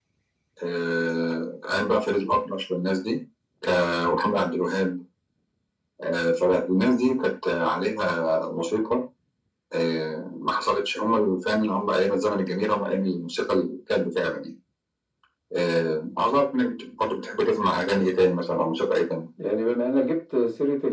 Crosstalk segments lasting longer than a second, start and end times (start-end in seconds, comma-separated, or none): none